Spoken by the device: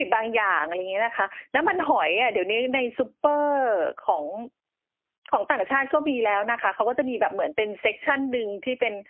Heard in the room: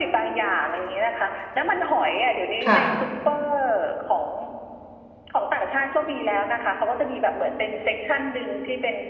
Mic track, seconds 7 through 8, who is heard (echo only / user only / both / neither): echo only